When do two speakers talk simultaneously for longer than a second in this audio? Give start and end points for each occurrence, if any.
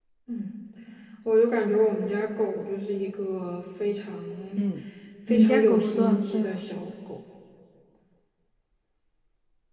5.3-6.6

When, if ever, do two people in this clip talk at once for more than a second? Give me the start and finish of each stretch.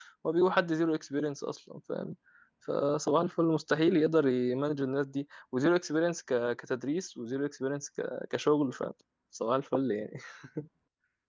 none

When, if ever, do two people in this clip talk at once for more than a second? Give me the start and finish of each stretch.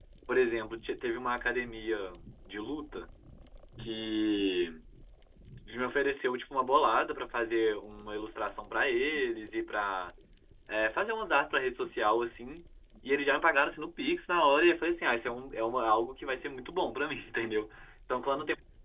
none

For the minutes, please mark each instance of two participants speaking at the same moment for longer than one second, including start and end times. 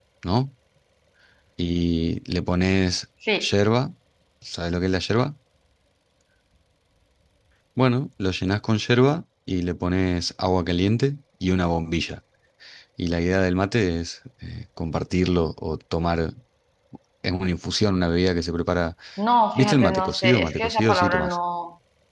19.6-21.4

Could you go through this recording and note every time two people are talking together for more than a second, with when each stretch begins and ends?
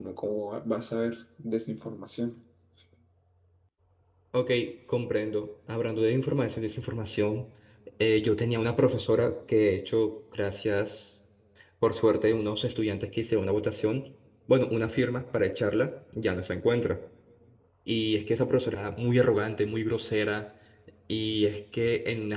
none

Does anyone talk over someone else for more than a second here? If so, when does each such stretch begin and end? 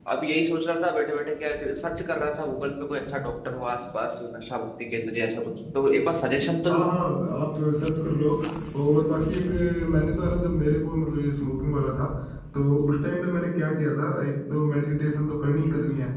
none

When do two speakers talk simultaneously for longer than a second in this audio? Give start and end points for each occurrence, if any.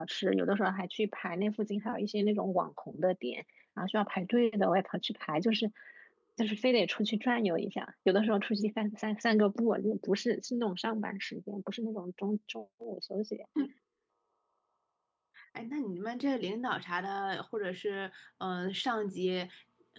none

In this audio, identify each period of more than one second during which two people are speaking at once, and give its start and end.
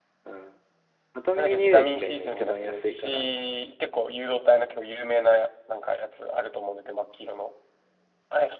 1.4-3.3

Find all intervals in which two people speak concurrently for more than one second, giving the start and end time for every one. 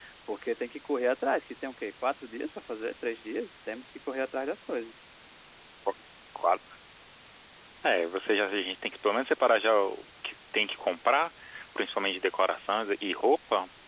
none

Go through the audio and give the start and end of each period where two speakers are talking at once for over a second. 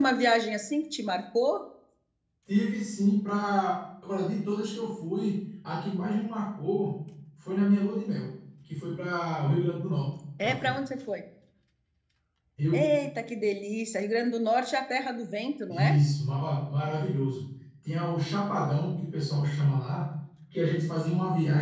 none

